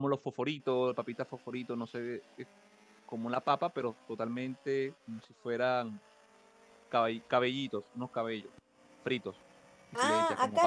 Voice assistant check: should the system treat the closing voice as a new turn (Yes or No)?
Yes